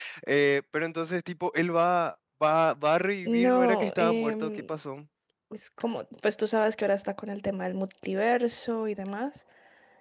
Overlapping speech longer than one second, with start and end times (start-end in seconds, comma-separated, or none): 3.2-4.7